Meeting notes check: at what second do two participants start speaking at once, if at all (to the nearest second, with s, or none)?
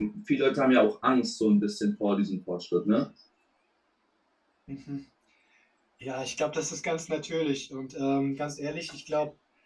none